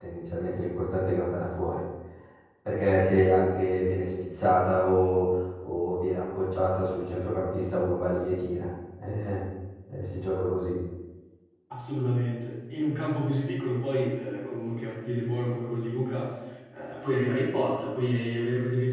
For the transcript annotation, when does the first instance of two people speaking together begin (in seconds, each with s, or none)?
none